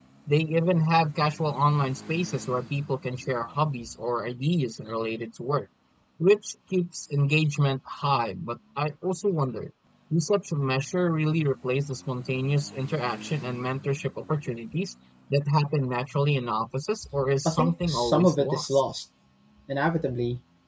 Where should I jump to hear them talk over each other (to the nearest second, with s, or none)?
17 s